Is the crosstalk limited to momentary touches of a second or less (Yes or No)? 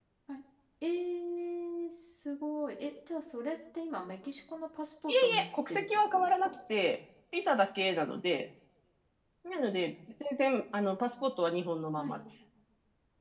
No